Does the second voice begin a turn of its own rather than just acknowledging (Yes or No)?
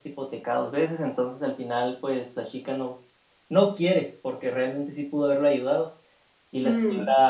No